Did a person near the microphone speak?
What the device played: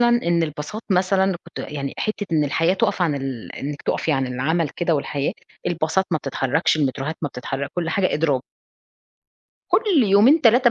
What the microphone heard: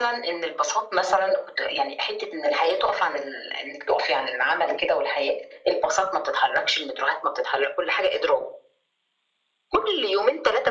No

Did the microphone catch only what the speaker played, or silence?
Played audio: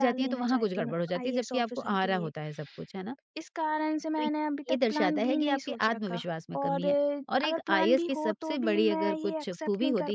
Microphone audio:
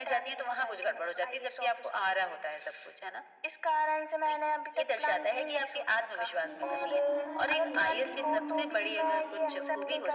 No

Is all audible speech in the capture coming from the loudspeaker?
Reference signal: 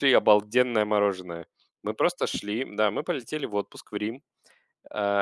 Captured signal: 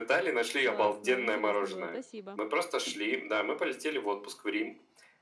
No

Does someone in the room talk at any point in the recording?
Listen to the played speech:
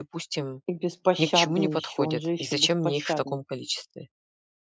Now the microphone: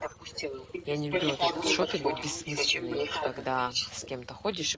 Yes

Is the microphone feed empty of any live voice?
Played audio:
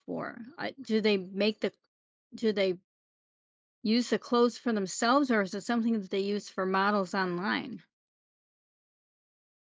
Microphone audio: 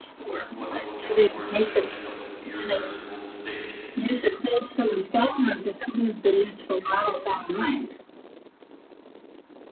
No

